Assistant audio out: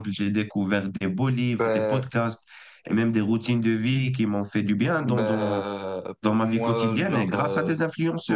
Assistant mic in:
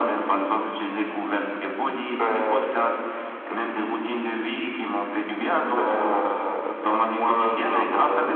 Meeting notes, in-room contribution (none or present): none